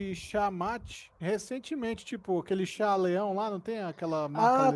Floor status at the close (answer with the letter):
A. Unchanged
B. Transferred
B